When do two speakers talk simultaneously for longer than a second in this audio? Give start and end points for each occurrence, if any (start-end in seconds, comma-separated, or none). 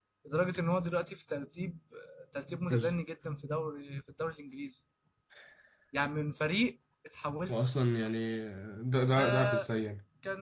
none